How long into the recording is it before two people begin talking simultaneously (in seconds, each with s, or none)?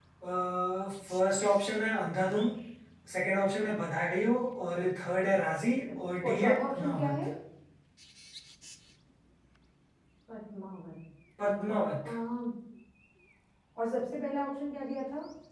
5.9 s